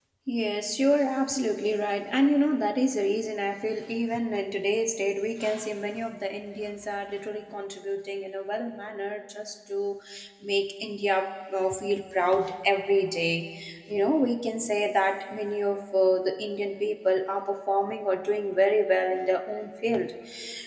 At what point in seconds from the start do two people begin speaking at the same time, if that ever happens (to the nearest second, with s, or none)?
none